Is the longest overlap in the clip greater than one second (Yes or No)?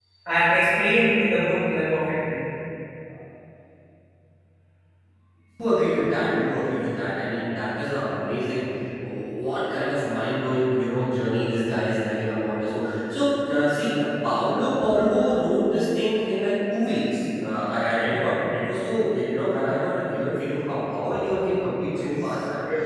No